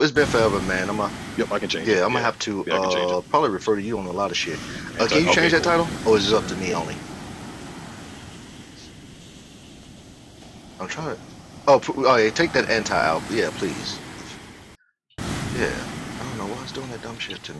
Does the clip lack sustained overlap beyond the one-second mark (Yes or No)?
No